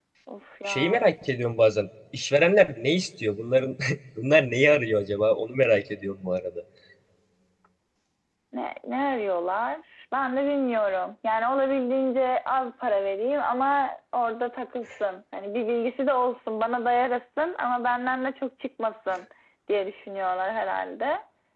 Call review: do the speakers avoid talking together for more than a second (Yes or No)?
Yes